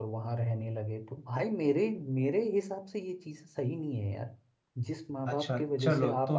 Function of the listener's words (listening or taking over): taking over